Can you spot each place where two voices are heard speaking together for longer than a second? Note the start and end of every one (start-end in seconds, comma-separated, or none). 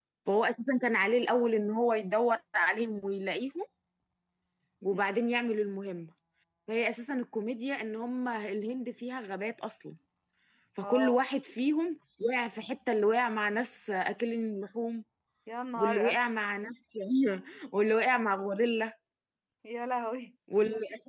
none